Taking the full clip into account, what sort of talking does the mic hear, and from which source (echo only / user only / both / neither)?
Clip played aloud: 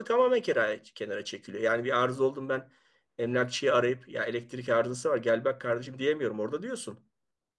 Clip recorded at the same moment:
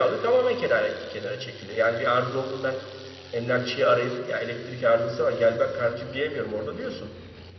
echo only